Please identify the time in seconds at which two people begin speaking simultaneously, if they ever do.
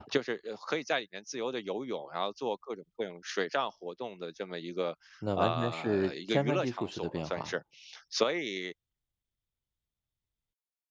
5 s

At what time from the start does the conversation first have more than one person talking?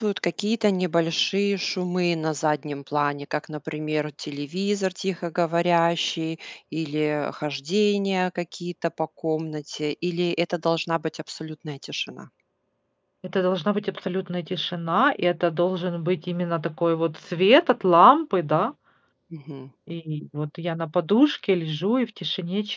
none

